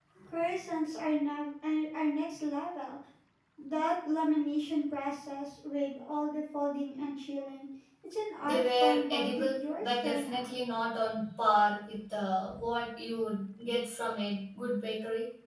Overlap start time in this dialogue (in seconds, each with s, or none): 8.4 s